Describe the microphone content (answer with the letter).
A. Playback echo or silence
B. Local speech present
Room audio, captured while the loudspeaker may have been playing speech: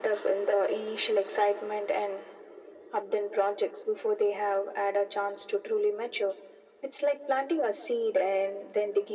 A